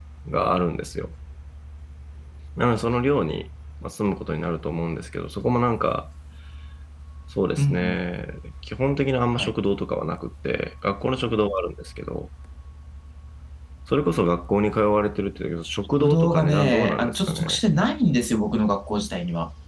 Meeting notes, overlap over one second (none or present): present